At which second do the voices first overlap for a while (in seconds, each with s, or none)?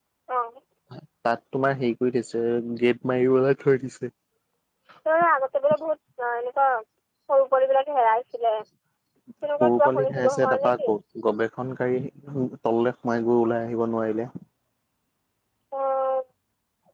9.6 s